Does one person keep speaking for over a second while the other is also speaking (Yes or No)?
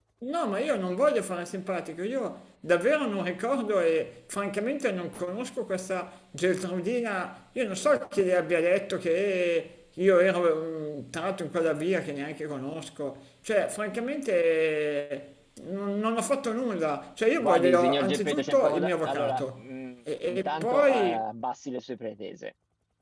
Yes